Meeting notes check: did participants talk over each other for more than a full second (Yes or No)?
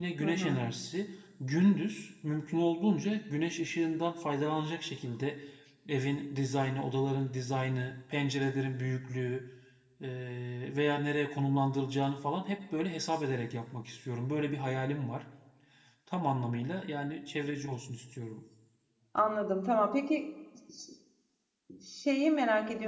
No